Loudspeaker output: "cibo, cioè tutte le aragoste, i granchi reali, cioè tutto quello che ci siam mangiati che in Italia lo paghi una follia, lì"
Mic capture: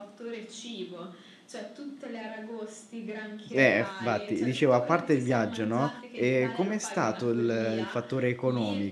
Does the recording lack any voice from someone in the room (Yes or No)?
No